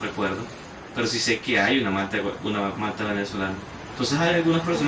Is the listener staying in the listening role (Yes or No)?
Yes